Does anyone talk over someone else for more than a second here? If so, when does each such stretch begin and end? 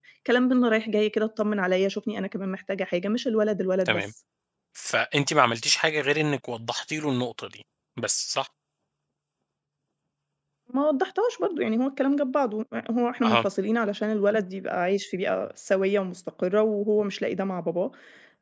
none

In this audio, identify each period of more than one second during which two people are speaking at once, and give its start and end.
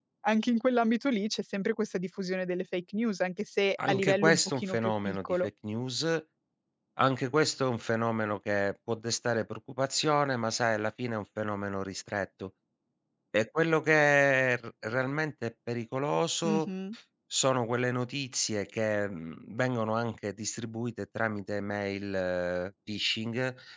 3.9-5.4

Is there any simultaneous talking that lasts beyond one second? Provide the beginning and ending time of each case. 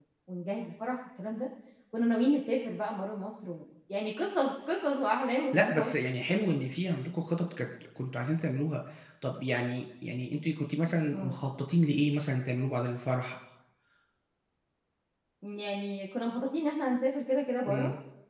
none

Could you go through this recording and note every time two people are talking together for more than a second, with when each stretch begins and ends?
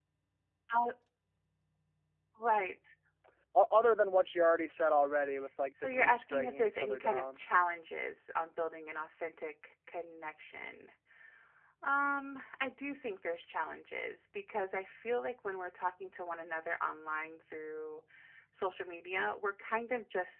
5.8-7.4

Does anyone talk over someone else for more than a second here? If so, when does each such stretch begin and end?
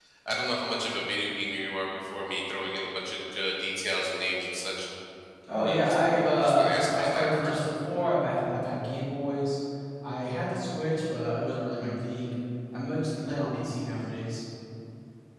5.7-7.6

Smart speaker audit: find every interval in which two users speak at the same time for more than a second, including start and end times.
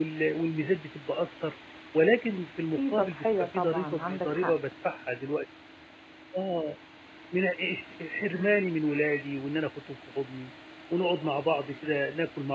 2.8-4.5

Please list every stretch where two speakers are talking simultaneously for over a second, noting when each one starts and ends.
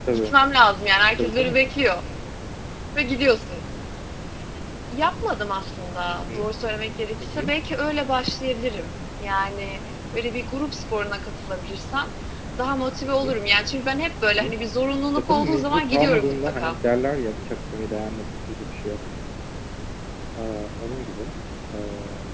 15.3-16.8

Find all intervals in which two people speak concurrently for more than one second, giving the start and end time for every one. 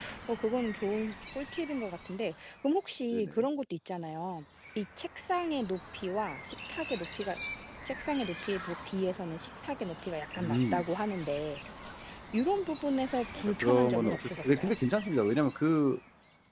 13.3-14.7

